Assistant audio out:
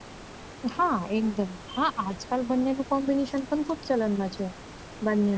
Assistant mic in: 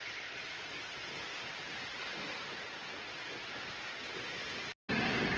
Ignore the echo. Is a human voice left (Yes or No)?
No